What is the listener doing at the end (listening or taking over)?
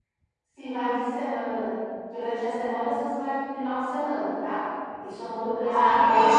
taking over